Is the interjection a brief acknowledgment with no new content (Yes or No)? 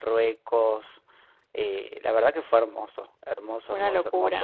Yes